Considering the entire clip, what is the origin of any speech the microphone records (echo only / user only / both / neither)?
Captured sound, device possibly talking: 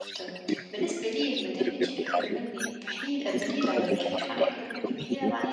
both